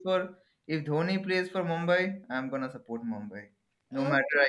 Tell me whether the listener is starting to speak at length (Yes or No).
Yes